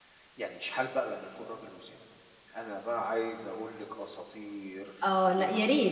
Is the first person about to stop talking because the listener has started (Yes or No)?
Yes